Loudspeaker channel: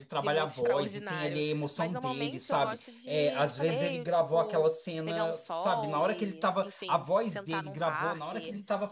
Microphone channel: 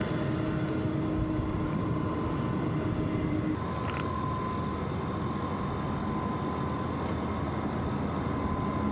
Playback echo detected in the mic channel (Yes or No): No